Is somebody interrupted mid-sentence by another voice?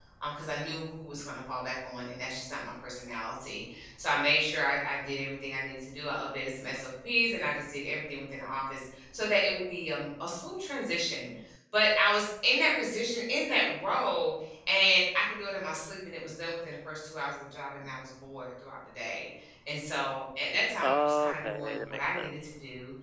Yes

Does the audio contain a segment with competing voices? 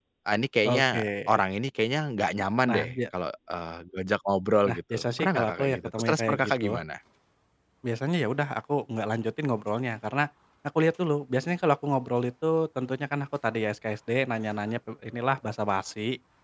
Yes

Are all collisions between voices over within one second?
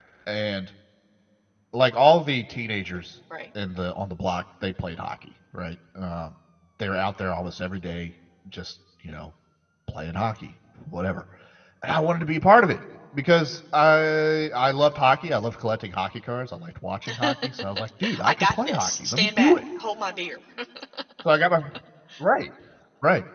No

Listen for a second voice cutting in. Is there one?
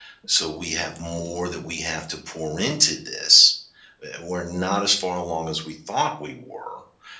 No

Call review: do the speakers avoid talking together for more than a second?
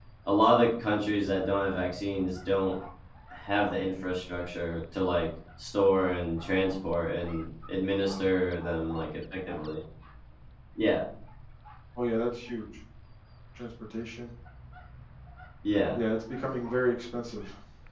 Yes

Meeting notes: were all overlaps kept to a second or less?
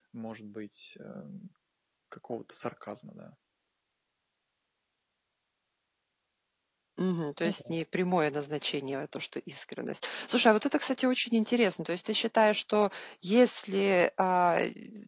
Yes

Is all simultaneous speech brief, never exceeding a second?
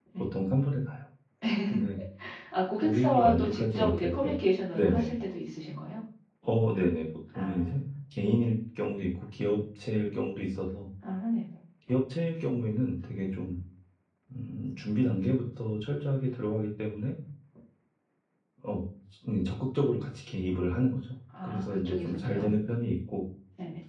No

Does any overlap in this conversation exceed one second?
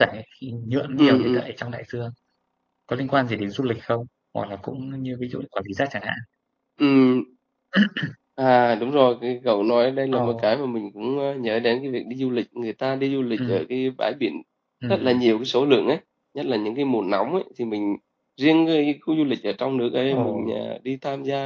No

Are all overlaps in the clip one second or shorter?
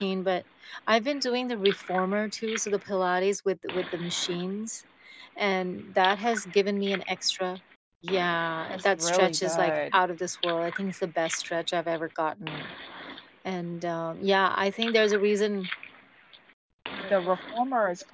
No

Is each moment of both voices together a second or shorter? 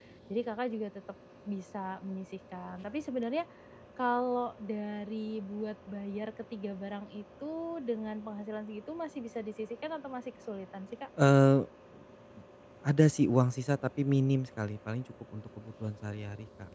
Yes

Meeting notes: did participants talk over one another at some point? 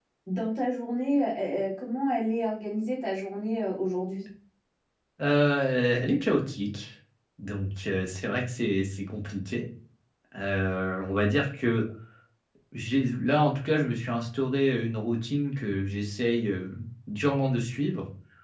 No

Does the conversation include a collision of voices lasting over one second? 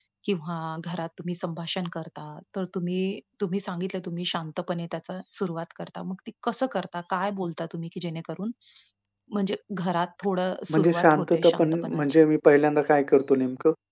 Yes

